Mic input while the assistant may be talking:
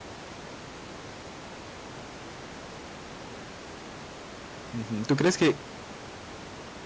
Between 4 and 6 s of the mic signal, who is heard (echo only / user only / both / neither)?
user only